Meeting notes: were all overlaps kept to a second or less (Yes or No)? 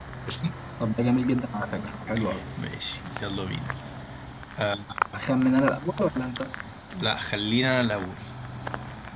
Yes